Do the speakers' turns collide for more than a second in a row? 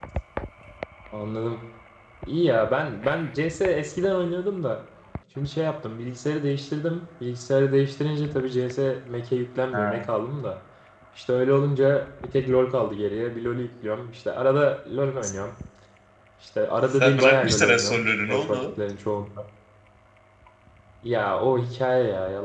Yes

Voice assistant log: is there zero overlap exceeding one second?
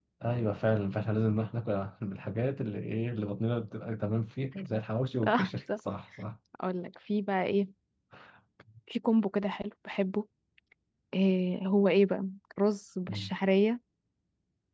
Yes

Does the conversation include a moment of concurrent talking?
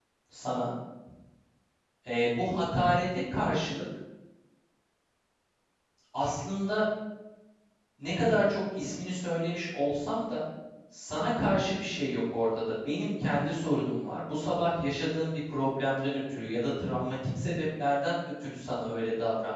No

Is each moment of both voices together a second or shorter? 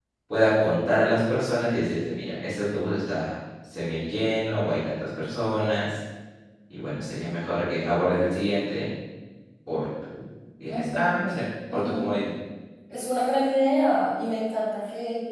Yes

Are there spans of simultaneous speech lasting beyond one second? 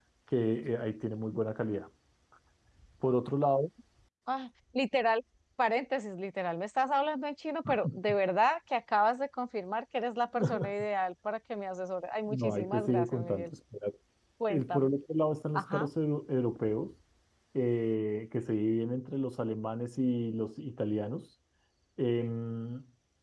Yes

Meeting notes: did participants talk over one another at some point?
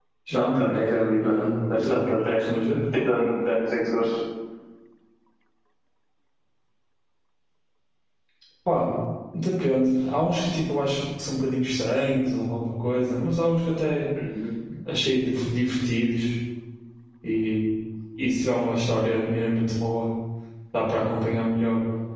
Yes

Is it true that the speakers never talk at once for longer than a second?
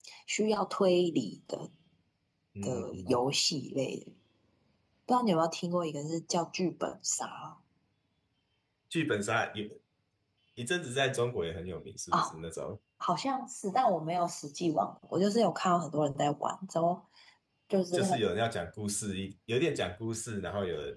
Yes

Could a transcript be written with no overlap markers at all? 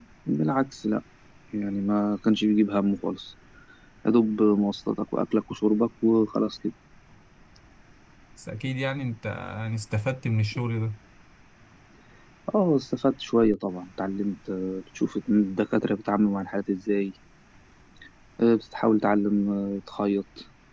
Yes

